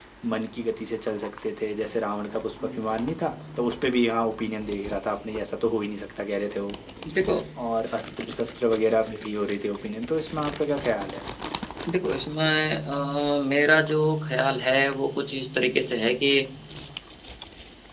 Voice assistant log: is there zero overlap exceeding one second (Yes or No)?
Yes